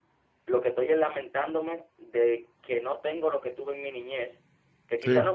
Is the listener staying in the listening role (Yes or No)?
Yes